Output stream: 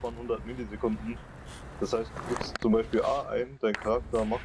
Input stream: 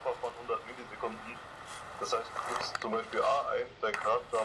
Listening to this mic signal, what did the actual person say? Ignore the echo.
none

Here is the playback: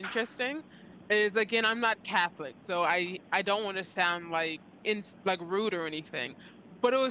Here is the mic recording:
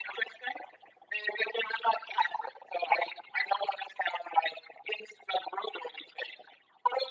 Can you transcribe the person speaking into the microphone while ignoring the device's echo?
none

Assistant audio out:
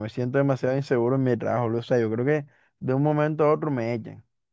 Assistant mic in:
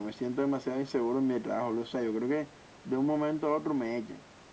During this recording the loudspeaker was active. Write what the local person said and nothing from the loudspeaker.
none

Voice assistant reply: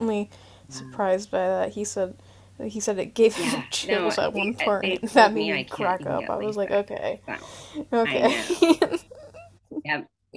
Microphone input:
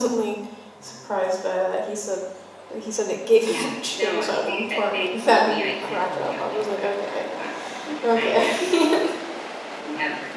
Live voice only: none

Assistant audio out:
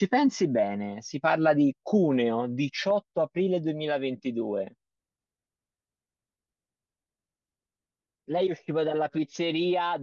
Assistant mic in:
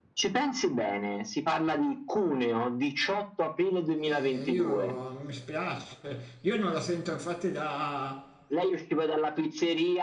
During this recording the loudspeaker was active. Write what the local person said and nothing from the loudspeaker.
Eh, io mi spiace, io non la sento infatti da

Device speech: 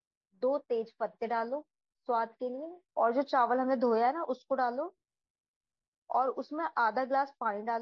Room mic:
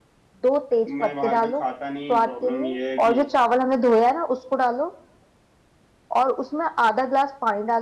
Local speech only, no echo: मैं बाहर का खाता नहीं प्रॉब्लम ये है कि

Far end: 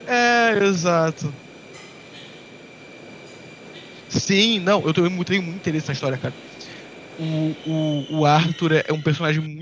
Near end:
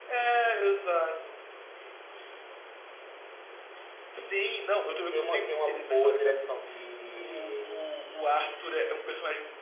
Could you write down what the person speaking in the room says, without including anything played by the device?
Tem uma, tem uma boa direção de,

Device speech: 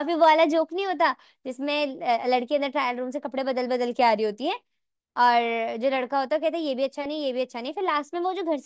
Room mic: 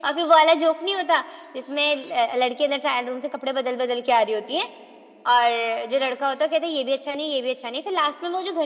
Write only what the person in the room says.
none

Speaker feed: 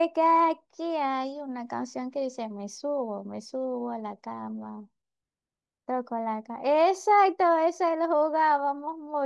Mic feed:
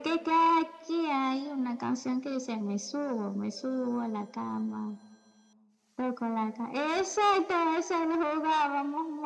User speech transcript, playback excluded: none

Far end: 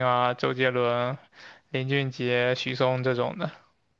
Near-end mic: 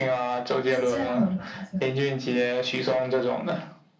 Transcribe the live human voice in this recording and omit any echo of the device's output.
而且这样很麻烦，

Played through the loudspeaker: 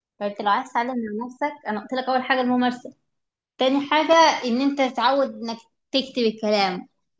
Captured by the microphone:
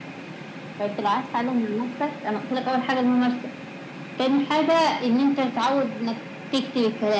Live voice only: none

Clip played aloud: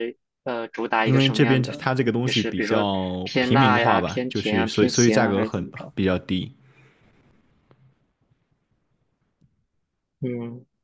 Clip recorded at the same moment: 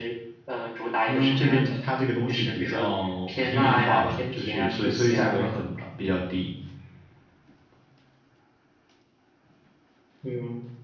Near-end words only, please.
none

